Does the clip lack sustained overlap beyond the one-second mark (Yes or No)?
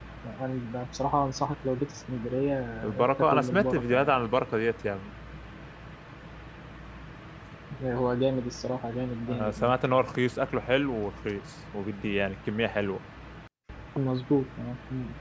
No